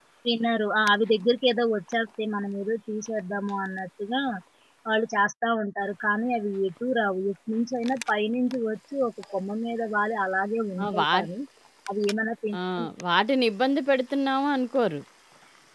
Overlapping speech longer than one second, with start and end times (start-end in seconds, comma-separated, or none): none